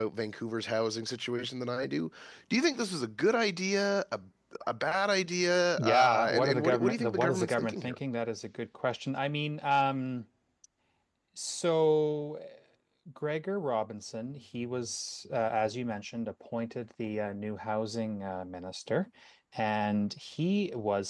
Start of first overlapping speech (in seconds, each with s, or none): 5.8 s